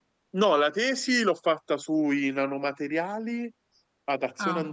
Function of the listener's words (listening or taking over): listening